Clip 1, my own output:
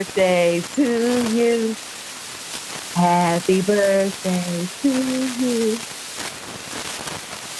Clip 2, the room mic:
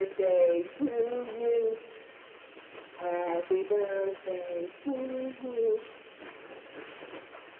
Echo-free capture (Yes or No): No